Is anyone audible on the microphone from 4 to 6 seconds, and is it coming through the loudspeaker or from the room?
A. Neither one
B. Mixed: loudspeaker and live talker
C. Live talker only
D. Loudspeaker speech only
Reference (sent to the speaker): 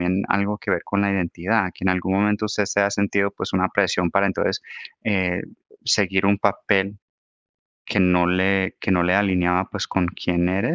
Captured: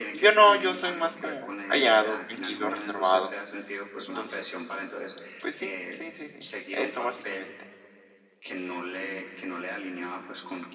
B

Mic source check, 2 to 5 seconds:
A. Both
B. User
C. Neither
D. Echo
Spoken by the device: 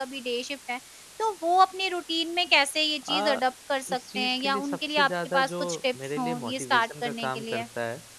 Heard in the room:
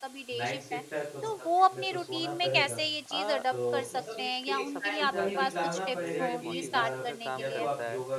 A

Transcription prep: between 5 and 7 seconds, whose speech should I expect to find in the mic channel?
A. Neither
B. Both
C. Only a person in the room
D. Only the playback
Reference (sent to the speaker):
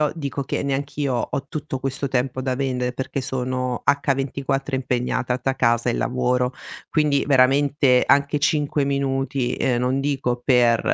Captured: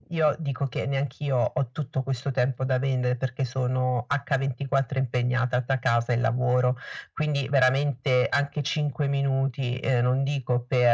D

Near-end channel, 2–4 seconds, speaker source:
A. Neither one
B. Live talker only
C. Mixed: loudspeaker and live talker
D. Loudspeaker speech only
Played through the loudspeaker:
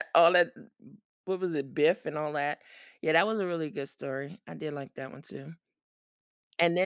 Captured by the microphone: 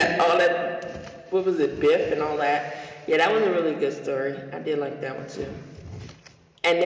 D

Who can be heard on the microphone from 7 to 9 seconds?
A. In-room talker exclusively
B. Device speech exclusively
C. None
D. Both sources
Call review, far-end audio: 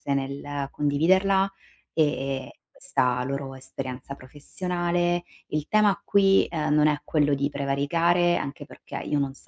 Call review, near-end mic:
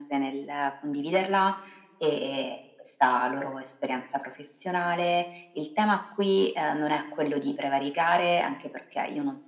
B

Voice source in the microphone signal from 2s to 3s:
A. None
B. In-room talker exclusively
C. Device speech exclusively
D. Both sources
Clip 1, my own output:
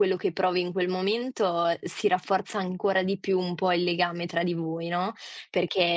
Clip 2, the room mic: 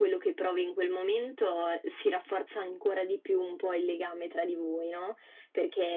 C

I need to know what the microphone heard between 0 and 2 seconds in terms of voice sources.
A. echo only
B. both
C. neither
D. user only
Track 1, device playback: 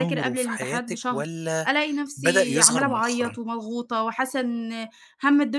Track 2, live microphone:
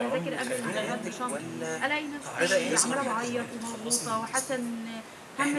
B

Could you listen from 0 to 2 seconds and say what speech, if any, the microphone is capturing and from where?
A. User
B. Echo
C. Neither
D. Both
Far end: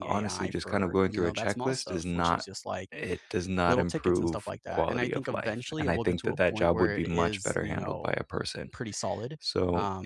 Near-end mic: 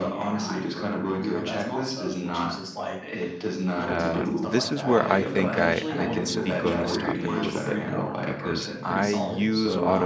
B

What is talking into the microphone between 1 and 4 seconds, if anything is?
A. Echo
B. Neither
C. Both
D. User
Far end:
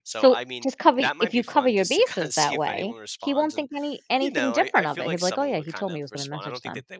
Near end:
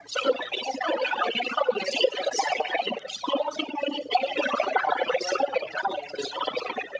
A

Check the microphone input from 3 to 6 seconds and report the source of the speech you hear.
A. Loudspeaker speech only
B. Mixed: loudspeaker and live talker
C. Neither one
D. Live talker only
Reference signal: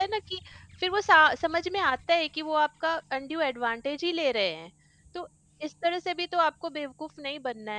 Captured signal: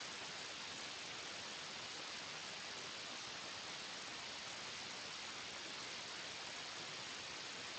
C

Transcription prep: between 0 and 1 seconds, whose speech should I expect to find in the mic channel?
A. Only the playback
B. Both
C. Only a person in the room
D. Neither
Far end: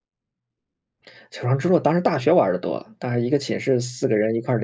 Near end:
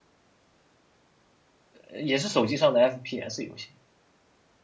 D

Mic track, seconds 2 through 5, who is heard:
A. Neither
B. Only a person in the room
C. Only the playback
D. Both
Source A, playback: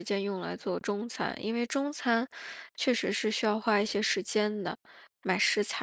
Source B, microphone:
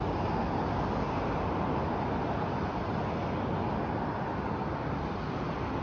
A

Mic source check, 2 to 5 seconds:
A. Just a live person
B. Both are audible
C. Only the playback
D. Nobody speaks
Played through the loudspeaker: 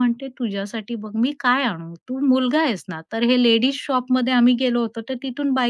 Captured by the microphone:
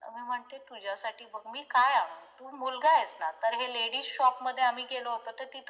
C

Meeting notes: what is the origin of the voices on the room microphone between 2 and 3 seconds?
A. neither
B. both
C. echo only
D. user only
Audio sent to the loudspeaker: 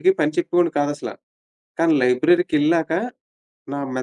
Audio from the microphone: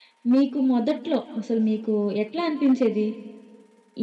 D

